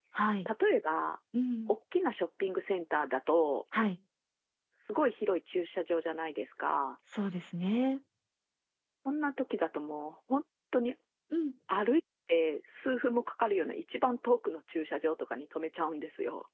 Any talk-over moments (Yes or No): No